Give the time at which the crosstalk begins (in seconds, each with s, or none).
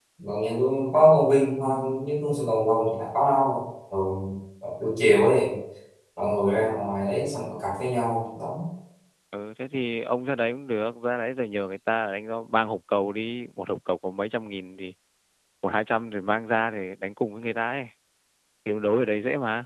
none